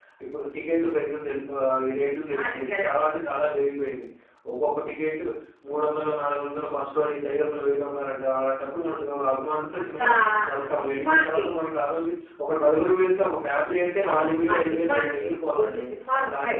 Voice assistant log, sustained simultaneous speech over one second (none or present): present